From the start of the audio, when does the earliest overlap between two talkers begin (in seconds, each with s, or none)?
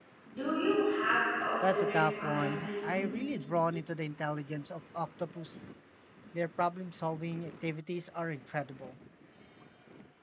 1.6 s